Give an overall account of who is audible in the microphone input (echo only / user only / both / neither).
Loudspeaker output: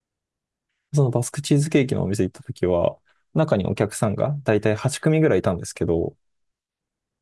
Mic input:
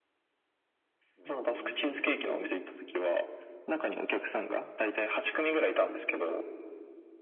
both